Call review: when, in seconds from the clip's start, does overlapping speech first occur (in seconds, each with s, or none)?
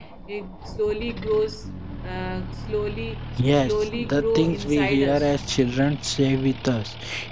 3.6 s